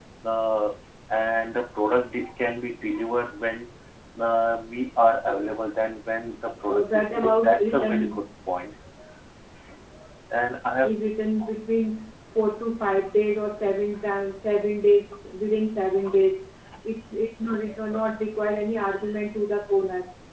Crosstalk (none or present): present